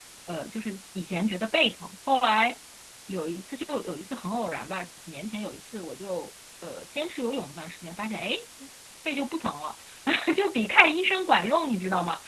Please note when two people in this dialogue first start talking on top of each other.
none

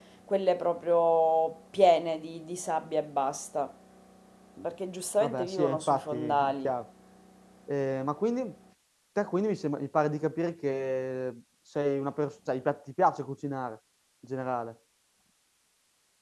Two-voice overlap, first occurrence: 5.2 s

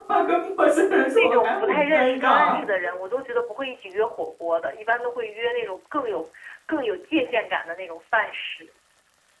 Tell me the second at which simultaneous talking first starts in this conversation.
1.1 s

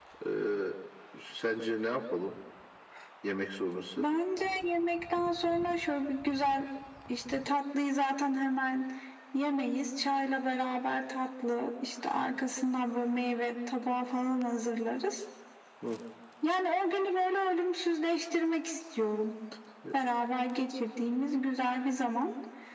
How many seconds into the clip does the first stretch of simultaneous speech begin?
none

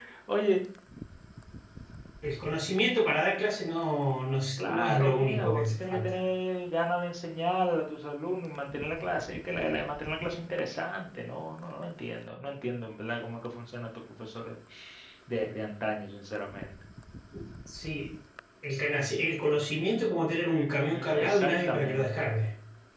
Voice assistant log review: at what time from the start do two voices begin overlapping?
4.6 s

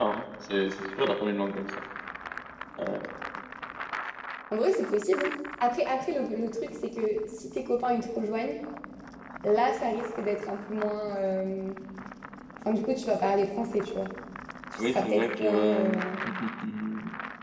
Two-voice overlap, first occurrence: 14.8 s

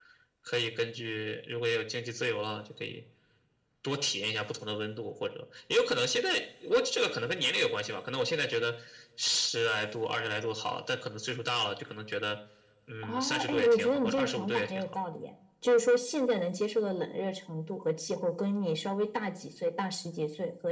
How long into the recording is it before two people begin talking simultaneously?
13.0 s

